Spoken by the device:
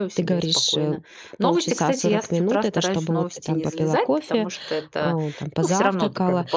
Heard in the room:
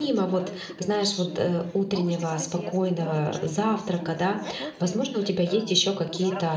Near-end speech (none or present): present